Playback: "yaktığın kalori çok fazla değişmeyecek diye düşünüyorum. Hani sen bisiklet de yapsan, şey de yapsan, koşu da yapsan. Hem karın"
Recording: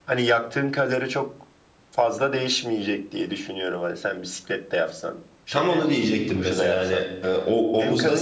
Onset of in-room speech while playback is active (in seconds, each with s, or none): 5.5 s